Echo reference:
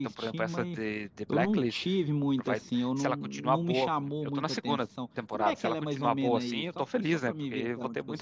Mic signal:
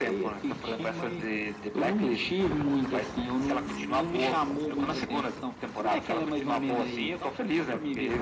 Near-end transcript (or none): none